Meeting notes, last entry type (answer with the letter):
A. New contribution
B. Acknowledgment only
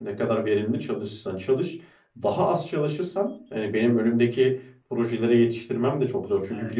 B